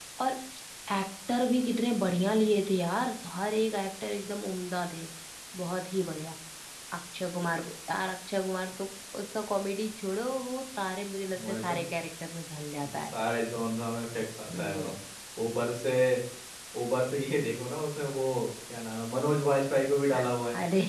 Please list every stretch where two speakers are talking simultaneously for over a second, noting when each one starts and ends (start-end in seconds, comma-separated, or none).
none